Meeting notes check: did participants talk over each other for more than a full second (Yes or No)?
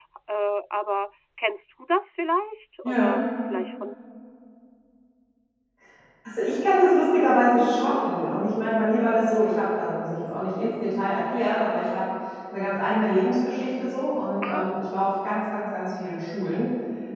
No